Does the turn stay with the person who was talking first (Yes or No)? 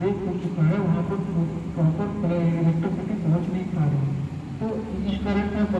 Yes